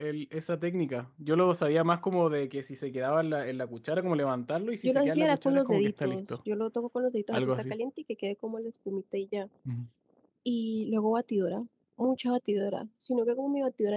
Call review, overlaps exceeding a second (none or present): present